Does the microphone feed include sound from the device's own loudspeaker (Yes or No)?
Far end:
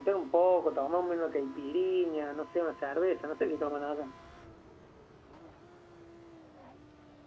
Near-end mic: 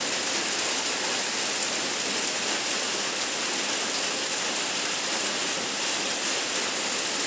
No